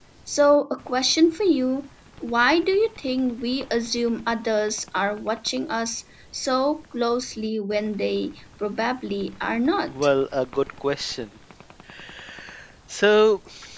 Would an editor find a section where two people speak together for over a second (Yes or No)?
No